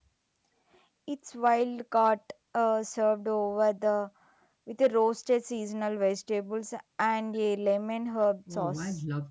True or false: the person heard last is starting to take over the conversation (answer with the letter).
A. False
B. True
B